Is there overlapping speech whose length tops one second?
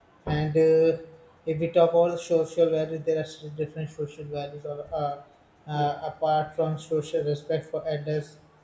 No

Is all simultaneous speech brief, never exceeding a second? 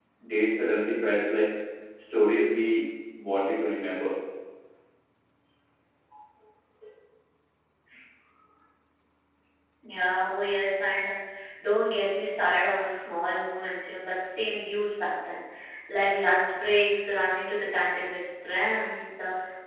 Yes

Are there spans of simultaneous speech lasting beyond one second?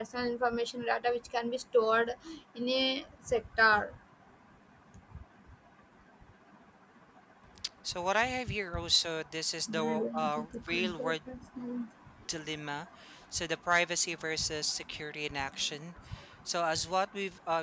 Yes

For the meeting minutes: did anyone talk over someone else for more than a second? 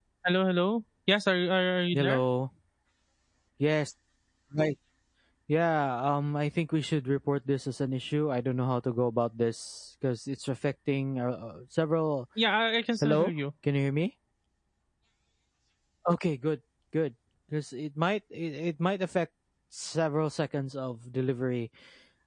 No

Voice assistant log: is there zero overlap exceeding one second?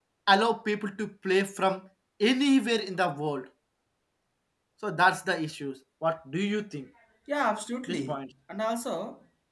Yes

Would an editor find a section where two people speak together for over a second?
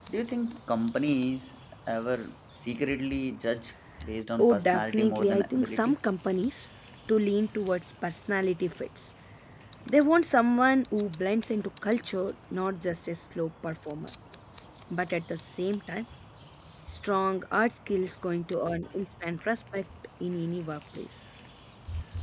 Yes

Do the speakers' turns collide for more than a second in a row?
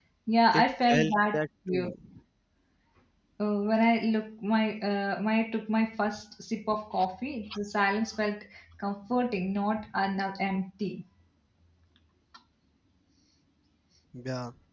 Yes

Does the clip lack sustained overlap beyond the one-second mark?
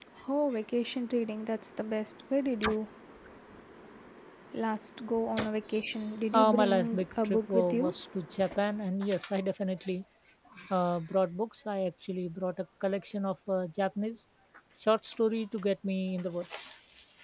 No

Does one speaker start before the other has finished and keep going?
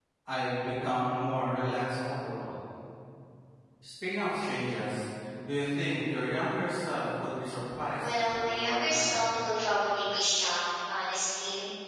Yes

